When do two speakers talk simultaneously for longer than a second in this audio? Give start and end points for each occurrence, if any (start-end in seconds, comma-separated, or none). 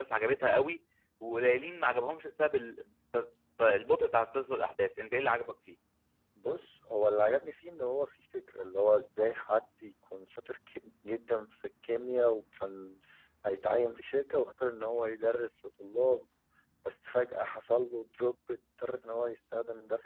none